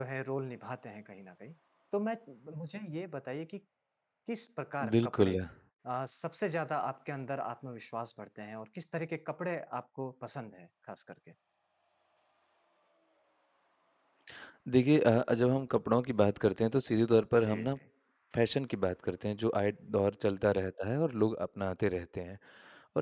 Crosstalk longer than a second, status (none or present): none